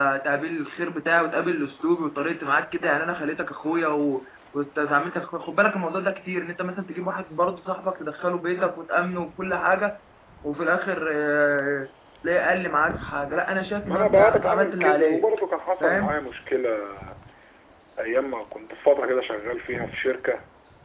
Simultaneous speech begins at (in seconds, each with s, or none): 13.8 s